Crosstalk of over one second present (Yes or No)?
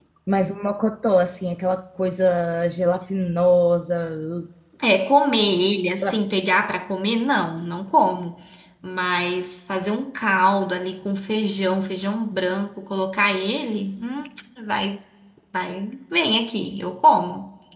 No